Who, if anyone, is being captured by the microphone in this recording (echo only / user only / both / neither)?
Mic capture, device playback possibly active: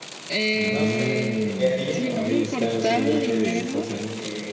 both